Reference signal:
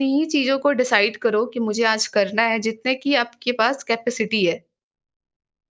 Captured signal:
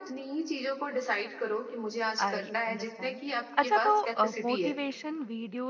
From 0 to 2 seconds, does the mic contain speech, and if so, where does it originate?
echo only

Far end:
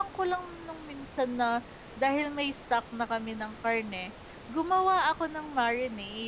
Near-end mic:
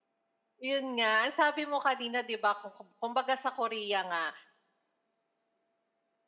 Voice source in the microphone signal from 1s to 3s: user only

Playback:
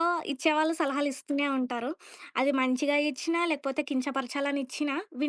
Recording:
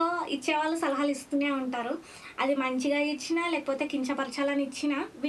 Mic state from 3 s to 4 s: echo only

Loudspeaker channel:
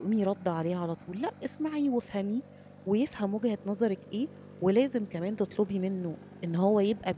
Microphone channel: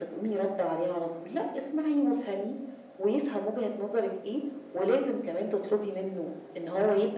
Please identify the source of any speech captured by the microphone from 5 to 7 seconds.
echo only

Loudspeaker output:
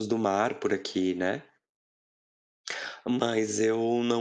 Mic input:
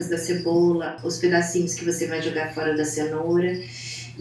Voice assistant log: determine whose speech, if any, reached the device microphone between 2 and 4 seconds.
user only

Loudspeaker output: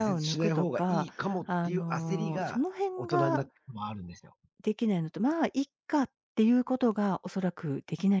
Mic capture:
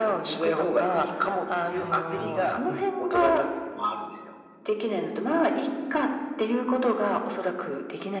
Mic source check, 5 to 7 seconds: echo only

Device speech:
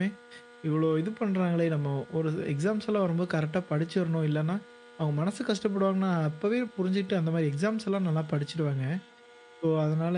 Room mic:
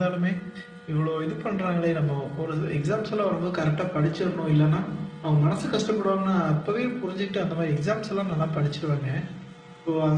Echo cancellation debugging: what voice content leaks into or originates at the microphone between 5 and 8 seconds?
echo only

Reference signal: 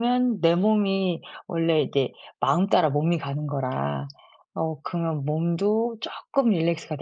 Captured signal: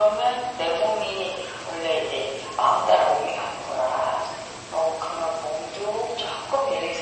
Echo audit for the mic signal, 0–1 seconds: echo only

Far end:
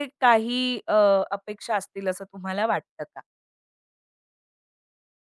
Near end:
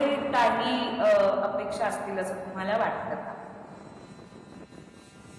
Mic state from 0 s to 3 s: echo only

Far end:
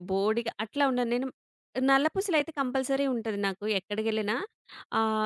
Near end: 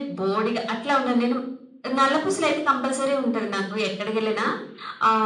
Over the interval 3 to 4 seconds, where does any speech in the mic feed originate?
echo only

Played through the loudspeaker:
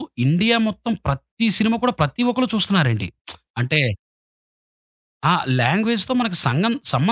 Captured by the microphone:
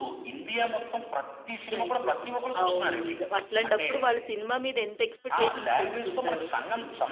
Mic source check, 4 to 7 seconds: both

